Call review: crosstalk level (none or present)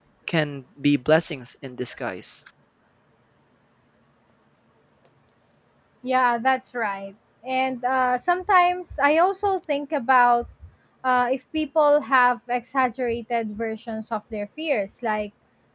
none